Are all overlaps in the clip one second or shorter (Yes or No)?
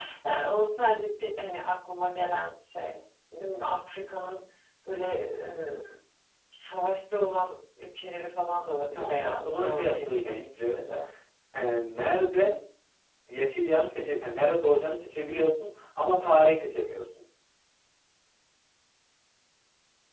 No